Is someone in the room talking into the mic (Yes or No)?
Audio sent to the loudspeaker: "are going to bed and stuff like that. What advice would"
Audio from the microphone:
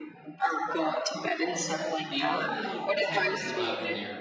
Yes